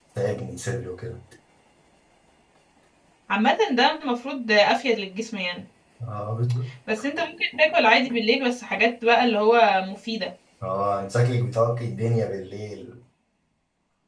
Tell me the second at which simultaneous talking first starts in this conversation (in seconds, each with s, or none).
none